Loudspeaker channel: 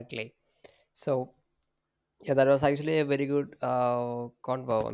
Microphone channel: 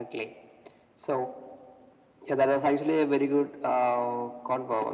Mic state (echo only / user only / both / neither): echo only